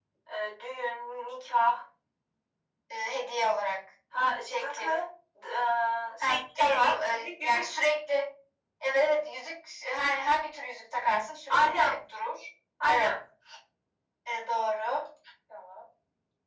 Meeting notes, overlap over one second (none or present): present